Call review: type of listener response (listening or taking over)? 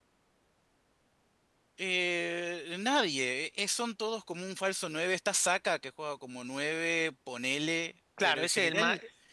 taking over